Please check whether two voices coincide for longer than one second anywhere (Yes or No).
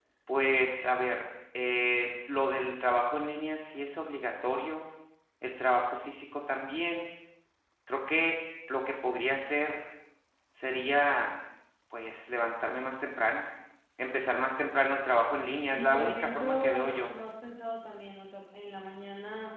Yes